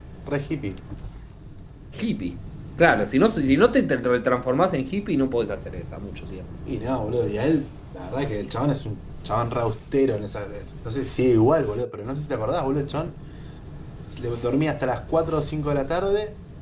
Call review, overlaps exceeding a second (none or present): none